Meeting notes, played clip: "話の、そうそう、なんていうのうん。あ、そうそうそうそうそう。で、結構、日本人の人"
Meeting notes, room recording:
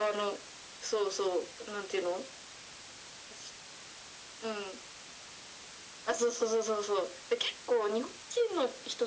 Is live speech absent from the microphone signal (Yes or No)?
Yes